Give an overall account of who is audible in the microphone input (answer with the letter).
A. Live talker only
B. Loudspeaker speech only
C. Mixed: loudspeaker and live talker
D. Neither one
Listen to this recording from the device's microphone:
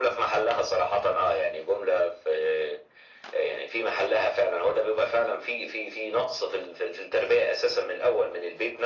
B